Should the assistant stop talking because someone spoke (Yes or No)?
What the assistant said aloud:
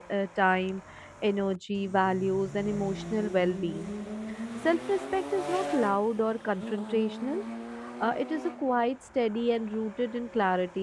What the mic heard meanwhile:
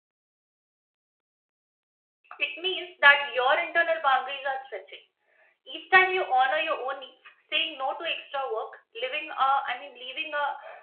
Yes